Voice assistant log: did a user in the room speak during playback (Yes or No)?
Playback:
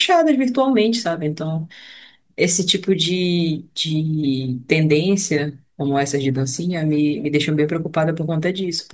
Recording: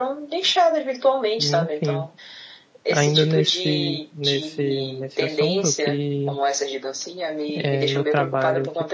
Yes